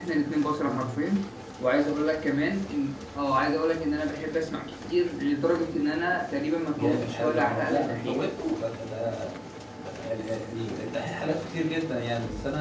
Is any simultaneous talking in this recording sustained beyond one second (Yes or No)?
Yes